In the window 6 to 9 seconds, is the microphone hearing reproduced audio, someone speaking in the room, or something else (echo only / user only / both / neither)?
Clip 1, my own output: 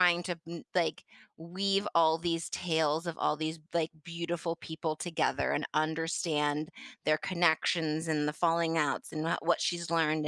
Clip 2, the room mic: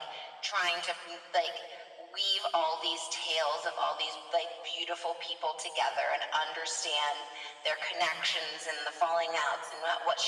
echo only